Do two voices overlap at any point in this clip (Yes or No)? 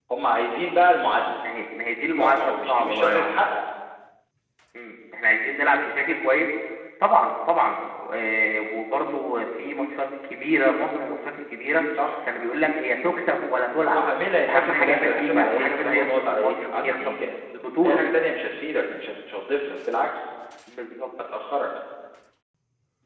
Yes